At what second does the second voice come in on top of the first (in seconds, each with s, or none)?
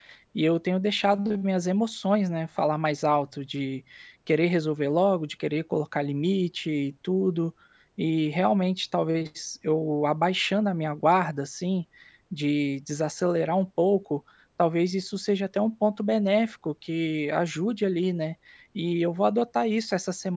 none